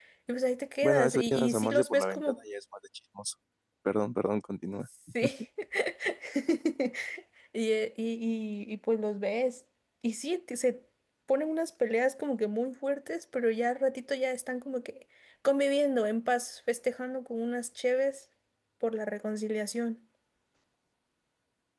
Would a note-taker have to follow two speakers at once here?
Yes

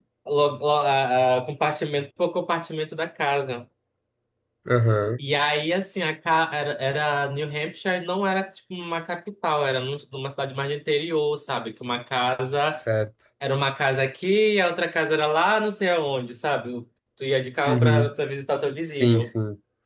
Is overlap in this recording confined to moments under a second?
Yes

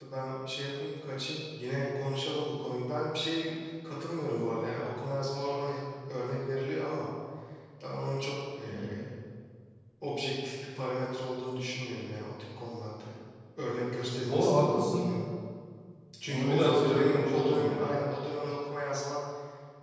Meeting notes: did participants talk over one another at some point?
Yes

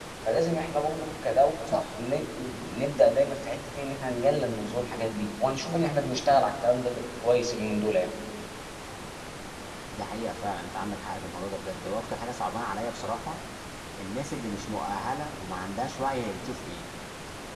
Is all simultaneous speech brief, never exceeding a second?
Yes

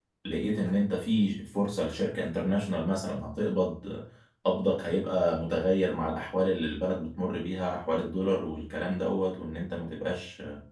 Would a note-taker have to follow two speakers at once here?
No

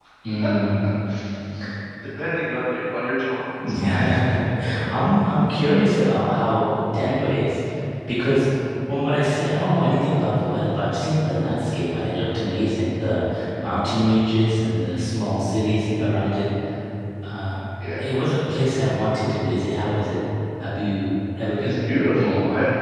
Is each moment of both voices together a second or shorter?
Yes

